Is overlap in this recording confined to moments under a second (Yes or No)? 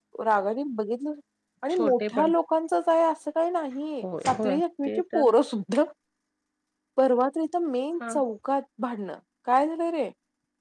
No